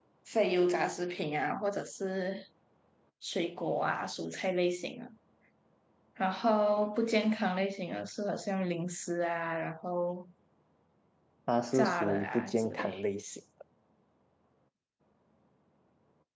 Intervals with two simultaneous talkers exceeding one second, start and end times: 11.7-13.0

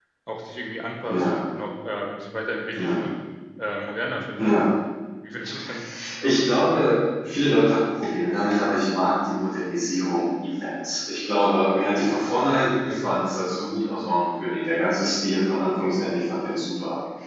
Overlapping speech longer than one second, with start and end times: none

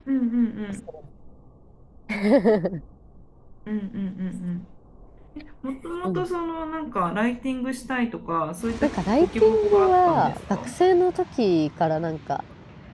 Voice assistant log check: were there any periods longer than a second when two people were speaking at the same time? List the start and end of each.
8.8-10.7

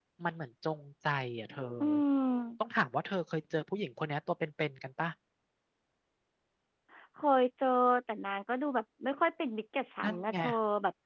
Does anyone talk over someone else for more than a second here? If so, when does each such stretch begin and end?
none

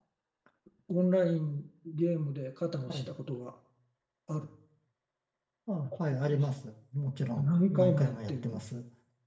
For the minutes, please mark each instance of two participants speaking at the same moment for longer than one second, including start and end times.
7.4-8.6

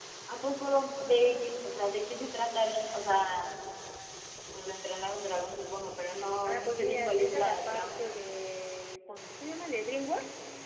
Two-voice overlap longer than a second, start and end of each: 6.4-8.0

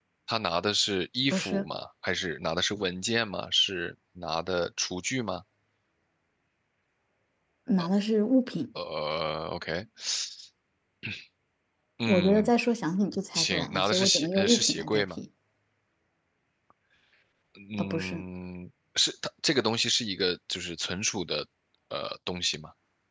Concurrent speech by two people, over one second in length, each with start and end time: 13.3-15.0

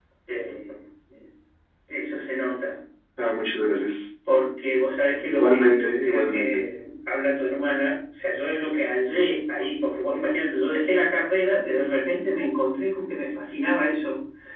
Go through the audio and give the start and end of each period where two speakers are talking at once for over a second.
5.3-6.6

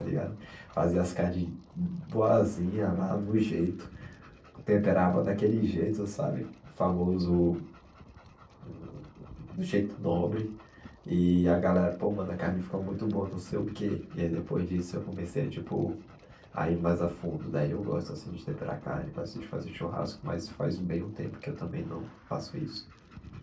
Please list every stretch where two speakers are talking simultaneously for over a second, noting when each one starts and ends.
none

